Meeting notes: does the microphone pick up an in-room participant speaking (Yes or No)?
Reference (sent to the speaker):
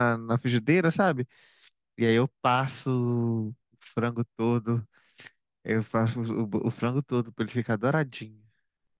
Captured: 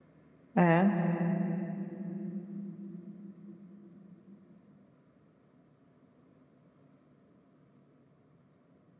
Yes